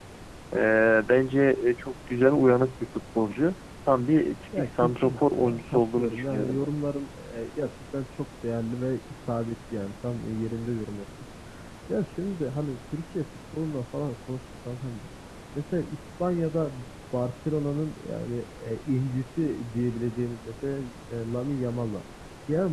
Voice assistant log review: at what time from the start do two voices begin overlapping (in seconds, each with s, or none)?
4.5 s